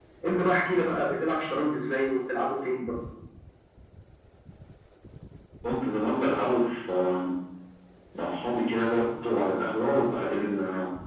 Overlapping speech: No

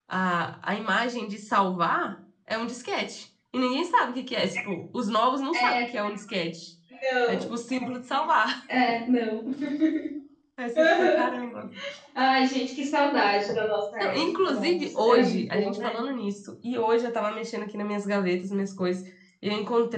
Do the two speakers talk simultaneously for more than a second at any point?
Yes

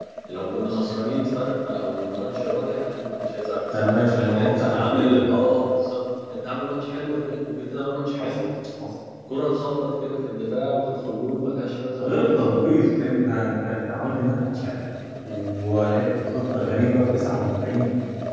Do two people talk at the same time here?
Yes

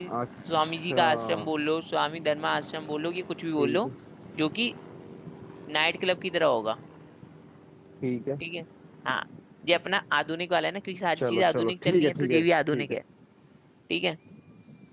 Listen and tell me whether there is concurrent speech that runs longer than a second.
Yes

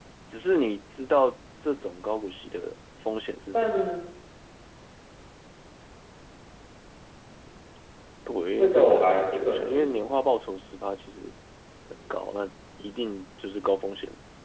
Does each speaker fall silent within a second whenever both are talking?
No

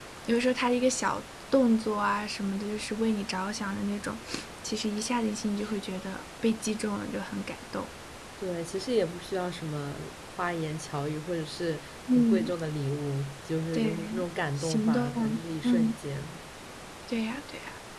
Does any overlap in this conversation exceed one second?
Yes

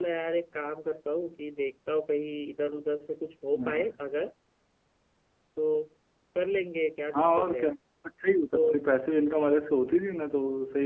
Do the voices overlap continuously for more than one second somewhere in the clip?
No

